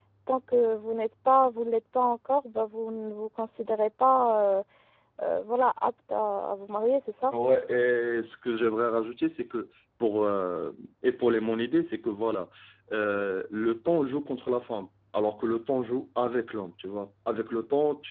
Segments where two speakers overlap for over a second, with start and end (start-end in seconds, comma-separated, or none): none